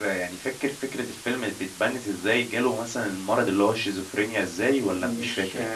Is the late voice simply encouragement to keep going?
No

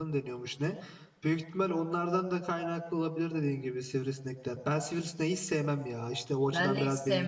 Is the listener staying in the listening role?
No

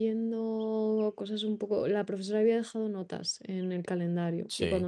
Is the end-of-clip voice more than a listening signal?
No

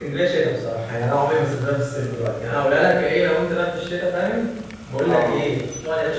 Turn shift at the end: No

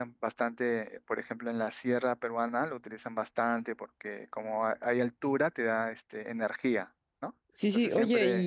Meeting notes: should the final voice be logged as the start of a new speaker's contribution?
Yes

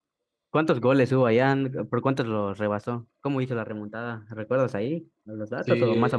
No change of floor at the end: No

